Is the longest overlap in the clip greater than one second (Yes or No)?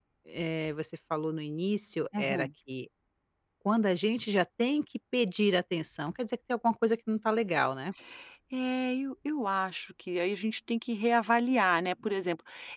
No